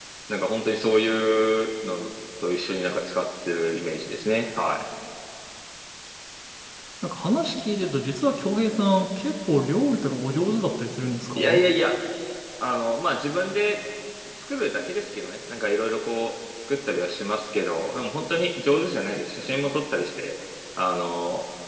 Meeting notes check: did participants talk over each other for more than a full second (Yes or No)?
No